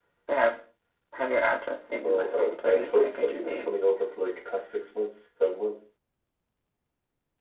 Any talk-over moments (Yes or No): Yes